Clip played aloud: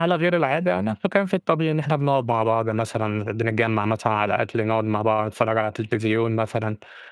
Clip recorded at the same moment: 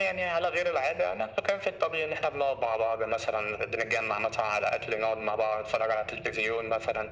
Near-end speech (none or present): none